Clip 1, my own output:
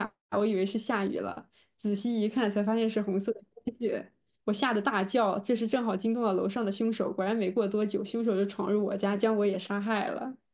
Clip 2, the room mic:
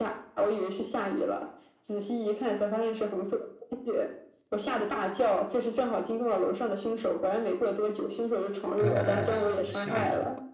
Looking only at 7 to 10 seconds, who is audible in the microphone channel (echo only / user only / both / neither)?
both